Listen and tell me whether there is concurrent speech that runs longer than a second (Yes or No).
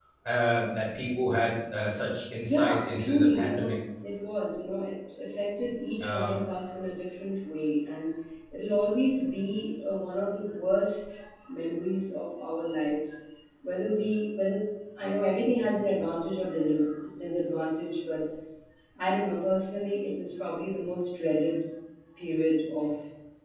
Yes